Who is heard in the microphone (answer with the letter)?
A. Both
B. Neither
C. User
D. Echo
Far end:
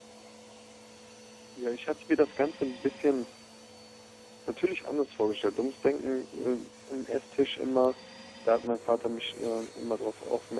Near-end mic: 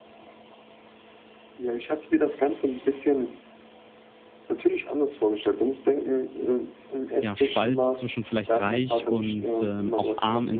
A